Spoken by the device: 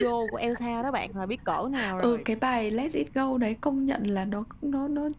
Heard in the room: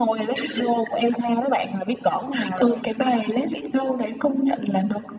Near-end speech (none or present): none